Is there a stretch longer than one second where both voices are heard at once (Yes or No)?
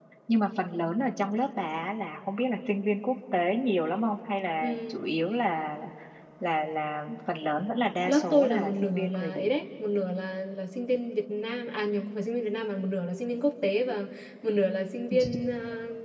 Yes